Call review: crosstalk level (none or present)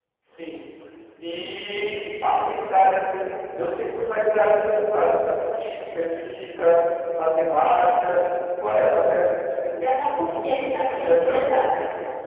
present